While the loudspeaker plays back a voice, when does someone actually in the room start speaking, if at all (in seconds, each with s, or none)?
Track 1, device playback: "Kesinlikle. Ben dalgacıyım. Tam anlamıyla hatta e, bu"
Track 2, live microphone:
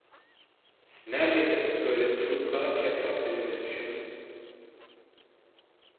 1.1 s